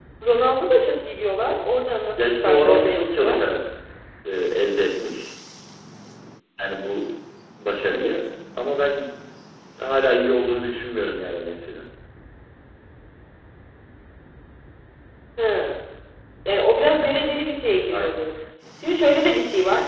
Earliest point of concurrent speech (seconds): 2.2 s

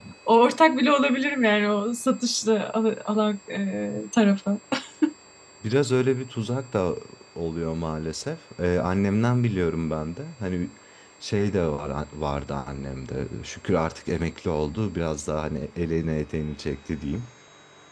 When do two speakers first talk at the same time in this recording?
none

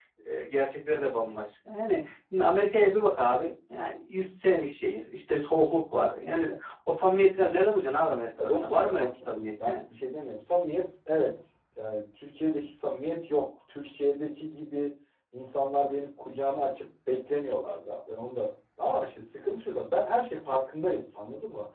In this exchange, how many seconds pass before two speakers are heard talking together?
8.4 s

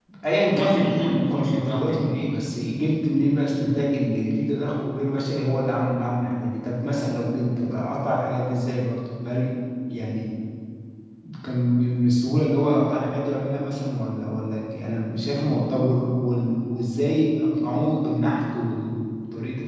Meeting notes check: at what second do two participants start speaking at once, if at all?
0.5 s

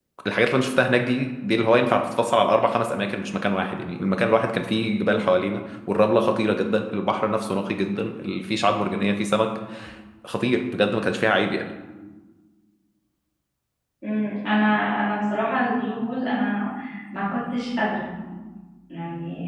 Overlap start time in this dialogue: none

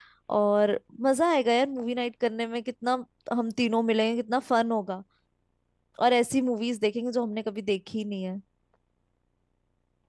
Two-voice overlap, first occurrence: none

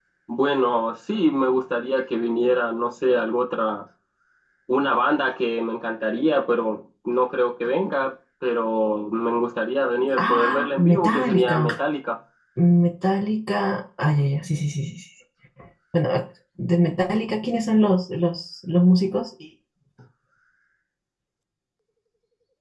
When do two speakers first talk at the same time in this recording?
10.2 s

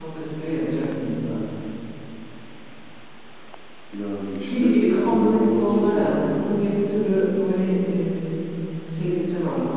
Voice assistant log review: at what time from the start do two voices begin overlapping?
4.5 s

